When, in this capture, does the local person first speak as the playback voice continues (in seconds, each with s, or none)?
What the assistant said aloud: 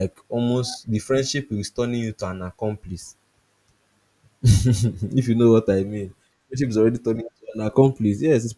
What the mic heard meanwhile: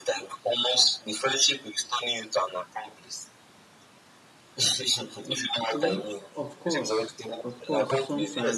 5.7 s